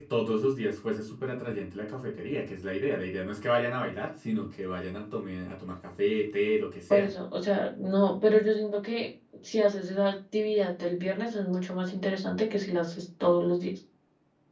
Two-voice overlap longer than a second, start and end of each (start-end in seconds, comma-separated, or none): none